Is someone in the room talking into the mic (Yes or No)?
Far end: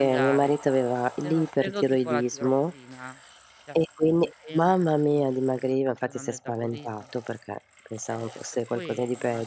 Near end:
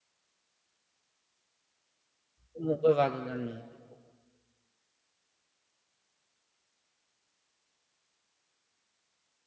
Yes